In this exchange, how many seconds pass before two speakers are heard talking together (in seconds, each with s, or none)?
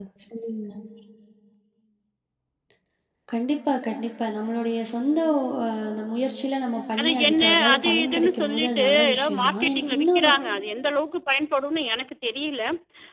7.0 s